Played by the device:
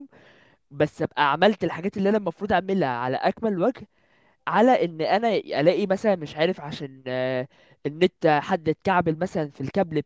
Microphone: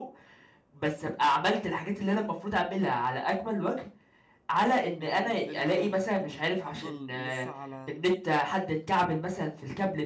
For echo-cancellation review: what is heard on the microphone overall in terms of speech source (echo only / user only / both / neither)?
both